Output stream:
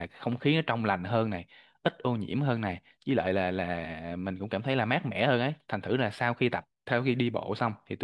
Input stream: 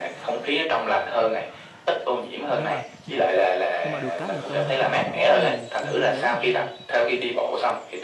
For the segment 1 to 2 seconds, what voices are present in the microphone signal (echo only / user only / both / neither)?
echo only